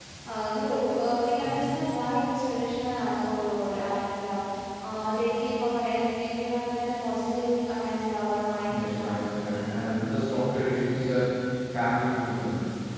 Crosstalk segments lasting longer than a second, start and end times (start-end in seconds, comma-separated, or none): none